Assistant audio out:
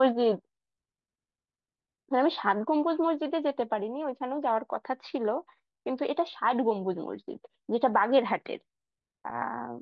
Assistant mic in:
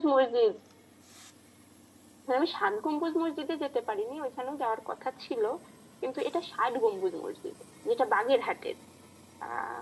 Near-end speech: none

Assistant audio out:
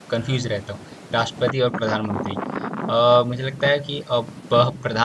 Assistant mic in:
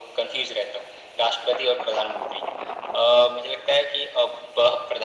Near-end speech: none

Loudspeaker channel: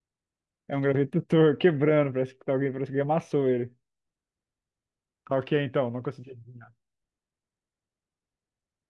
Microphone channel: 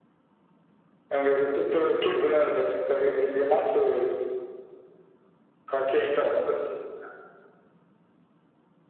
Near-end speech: none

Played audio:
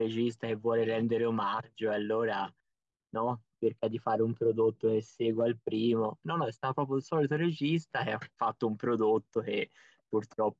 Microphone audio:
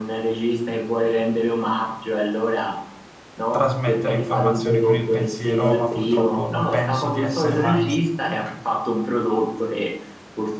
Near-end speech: present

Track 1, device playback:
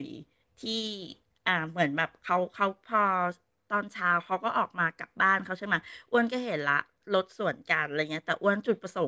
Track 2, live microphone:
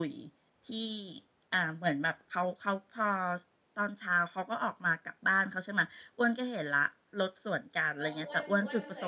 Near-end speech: present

